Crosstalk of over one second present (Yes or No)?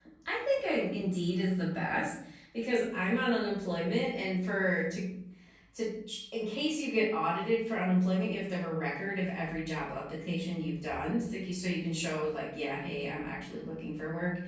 No